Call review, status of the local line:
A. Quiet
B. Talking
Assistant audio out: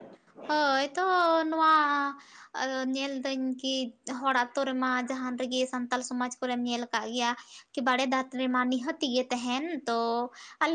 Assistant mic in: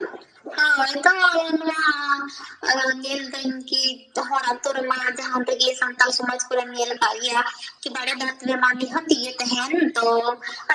A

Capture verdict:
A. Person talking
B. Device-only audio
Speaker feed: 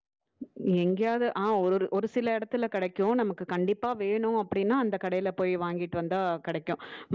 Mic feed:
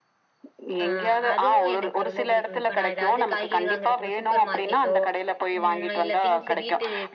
A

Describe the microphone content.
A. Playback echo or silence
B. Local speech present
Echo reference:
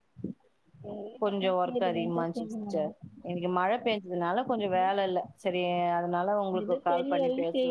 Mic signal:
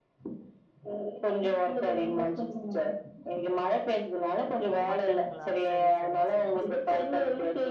B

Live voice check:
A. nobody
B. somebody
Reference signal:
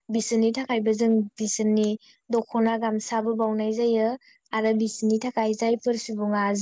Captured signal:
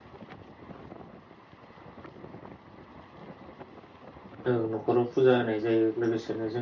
B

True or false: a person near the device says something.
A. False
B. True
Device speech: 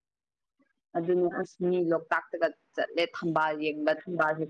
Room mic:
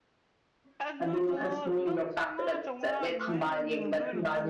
B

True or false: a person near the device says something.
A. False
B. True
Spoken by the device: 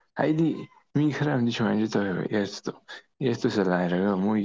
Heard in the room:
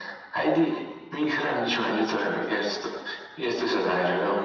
A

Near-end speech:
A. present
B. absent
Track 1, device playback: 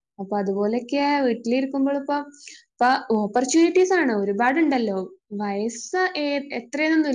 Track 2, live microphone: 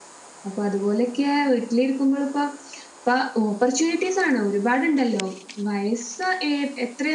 B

